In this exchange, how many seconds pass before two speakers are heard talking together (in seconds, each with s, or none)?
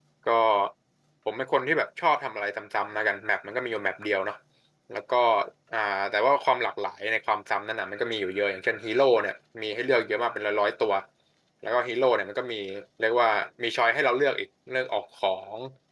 none